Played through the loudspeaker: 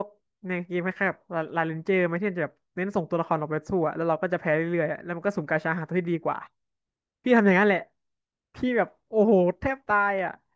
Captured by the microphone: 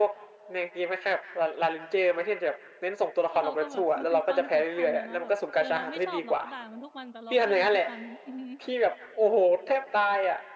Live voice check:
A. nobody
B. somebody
B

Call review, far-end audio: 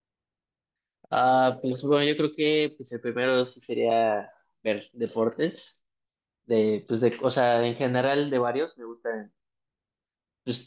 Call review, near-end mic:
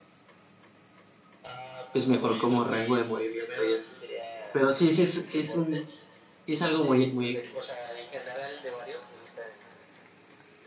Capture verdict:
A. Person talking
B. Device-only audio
A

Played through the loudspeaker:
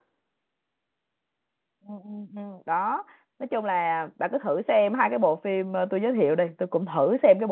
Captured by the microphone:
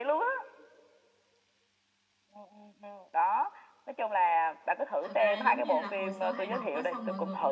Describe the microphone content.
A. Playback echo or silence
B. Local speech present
B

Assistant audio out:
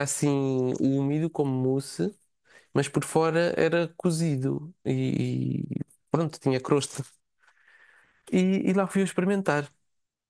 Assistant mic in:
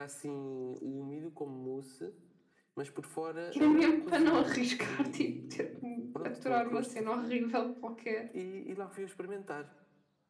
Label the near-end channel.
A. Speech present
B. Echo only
A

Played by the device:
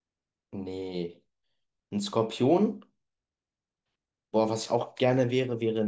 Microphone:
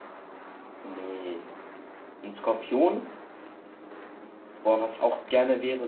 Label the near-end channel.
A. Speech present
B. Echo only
B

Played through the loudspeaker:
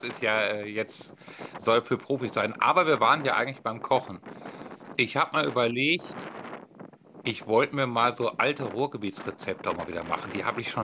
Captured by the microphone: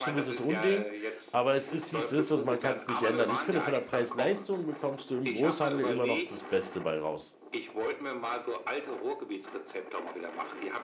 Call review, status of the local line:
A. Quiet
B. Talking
B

